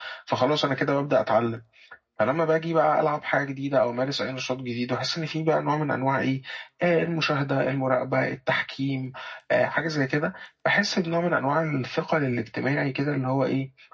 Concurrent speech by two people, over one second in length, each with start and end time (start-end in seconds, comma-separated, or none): none